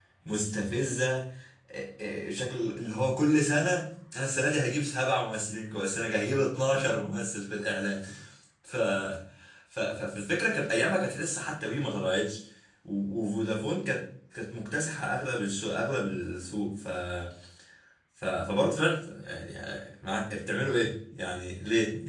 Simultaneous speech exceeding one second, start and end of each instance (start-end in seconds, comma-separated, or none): none